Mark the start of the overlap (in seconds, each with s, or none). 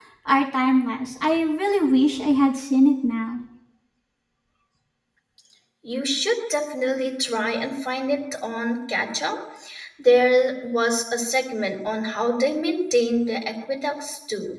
none